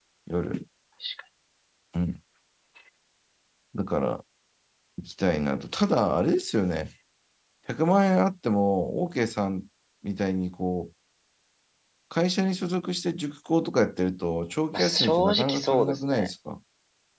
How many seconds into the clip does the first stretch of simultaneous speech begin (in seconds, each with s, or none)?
14.7 s